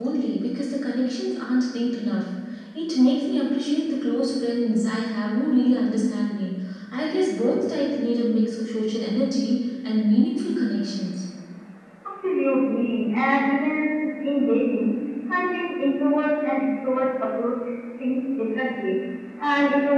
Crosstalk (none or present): none